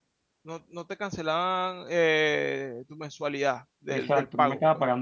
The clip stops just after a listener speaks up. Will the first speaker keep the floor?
No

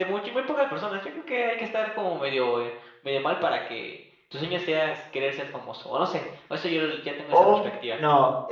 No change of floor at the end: No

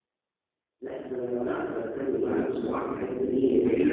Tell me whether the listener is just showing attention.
No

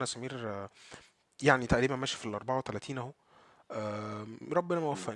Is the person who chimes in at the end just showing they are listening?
Yes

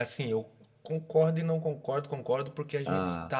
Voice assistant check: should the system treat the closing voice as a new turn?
No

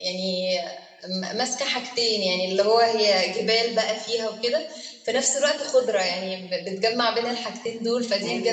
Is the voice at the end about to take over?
Yes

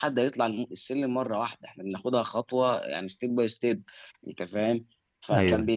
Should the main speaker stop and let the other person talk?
No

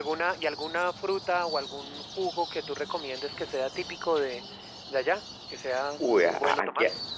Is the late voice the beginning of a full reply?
Yes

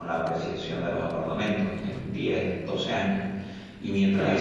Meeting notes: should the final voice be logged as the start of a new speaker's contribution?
Yes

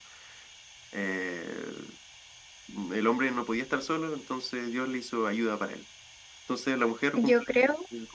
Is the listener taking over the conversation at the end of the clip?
No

